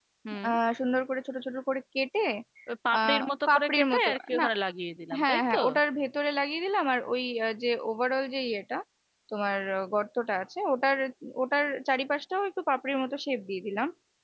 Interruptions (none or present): present